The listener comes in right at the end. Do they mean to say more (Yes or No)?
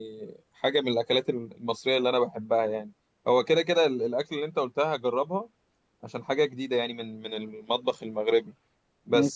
No